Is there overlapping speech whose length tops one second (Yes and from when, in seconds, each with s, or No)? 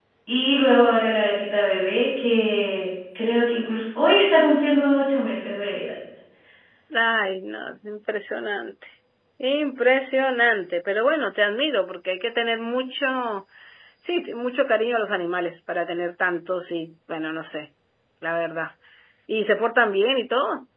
No